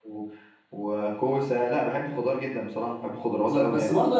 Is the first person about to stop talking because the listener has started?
Yes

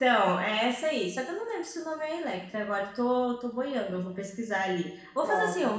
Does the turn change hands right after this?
Yes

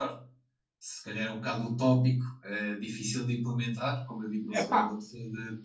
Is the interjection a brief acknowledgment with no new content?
Yes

